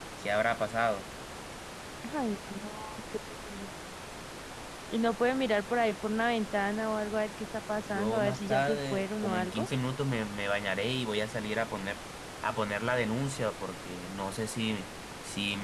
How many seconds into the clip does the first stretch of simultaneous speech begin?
8 s

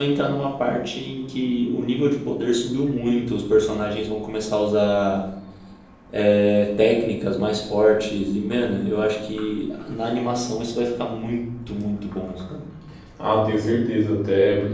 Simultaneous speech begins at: none

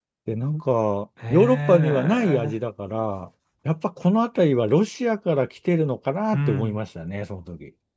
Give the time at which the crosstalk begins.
1 s

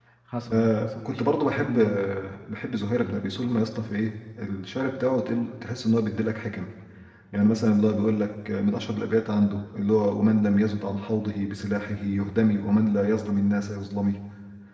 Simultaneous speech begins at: 1 s

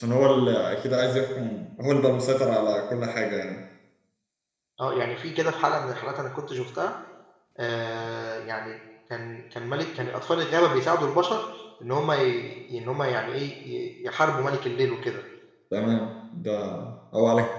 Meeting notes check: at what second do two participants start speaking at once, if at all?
none

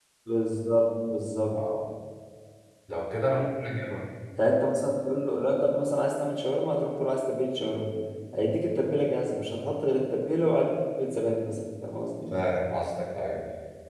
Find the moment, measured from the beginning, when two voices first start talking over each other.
none

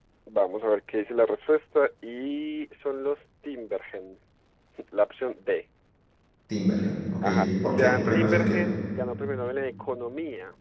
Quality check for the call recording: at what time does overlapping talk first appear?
7 s

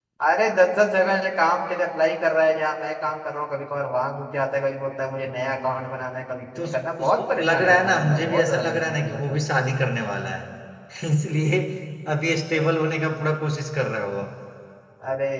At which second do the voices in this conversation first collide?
7 s

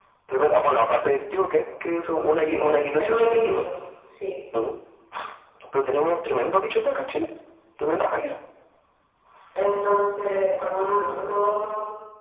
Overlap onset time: 2 s

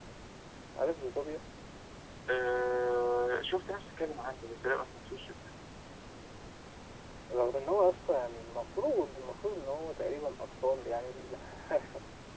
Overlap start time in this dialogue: none

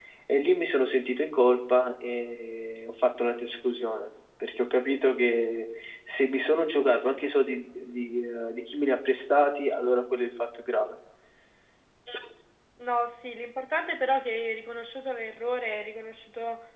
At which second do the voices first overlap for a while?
none

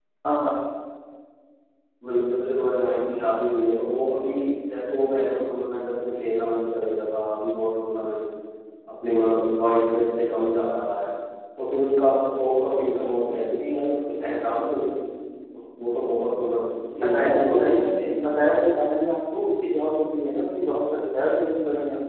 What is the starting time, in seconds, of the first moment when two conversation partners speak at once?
17 s

